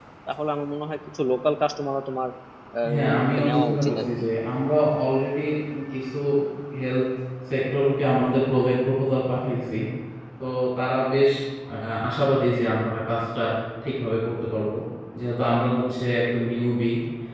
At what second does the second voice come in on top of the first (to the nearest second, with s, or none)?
3 s